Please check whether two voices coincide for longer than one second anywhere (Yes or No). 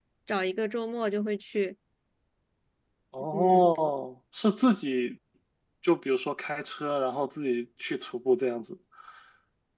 No